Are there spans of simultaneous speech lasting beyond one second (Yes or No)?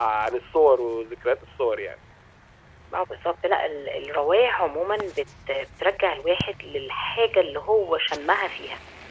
No